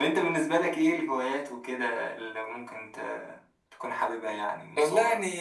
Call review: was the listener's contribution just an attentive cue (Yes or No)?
No